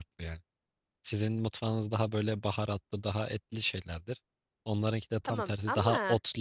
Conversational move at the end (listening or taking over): listening